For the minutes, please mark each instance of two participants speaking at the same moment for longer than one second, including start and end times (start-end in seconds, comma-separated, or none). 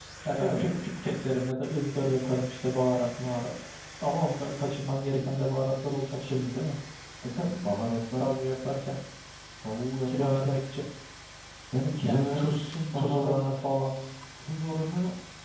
12.0-13.3